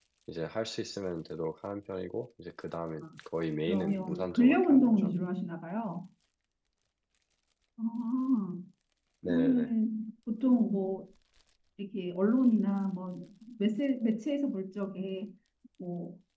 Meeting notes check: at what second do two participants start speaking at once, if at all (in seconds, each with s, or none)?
3.7 s